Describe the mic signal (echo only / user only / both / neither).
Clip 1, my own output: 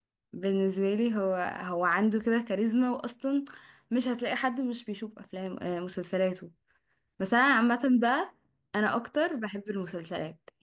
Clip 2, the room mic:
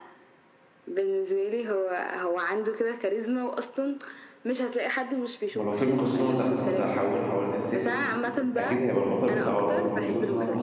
both